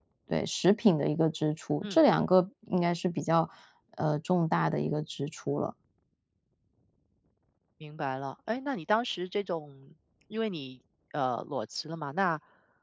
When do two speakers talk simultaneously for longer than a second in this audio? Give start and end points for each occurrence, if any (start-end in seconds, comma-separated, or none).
none